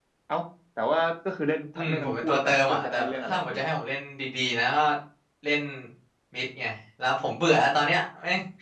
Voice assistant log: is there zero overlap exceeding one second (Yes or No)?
No